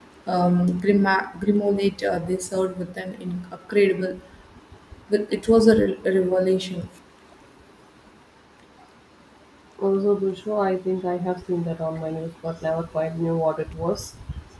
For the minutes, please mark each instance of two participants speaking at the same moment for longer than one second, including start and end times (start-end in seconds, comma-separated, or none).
none